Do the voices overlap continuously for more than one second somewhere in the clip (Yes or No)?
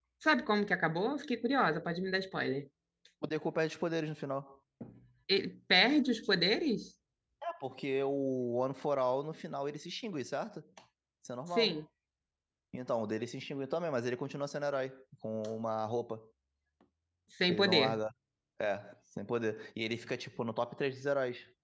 No